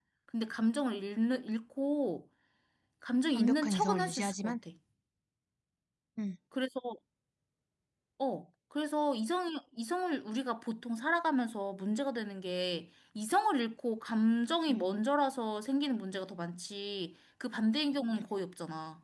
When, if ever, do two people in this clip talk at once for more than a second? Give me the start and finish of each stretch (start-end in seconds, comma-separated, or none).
3.4-4.6